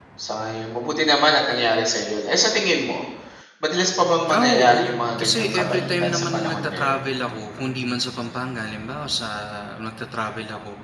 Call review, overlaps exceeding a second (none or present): present